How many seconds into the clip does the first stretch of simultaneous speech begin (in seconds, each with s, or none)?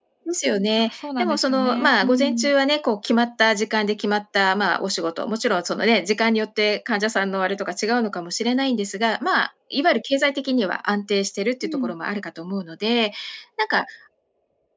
0.8 s